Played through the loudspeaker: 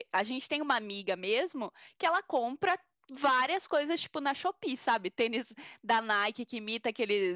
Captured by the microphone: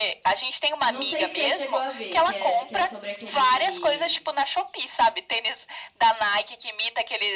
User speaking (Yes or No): Yes